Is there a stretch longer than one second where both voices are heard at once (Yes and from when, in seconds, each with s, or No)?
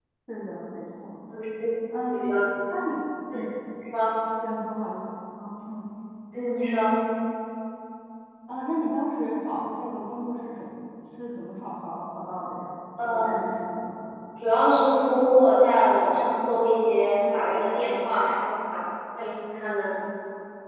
No